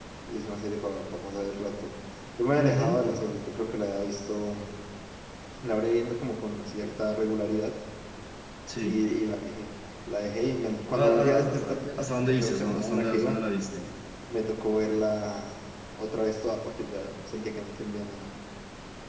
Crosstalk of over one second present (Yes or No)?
Yes